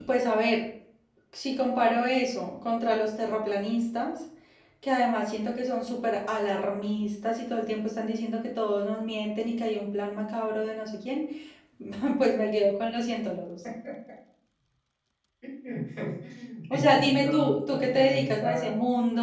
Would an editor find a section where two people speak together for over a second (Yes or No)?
Yes